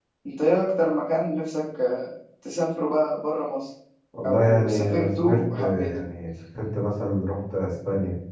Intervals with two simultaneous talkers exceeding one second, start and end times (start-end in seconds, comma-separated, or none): 4.3-5.9